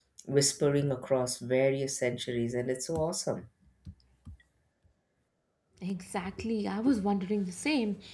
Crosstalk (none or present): none